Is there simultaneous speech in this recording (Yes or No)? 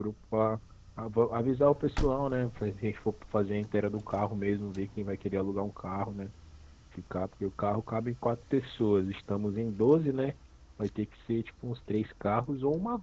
No